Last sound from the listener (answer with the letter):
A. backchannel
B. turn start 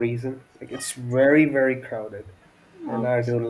A